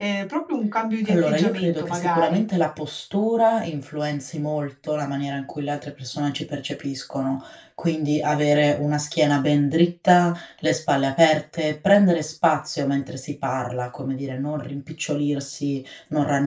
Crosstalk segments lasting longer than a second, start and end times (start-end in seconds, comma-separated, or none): 1.1-2.4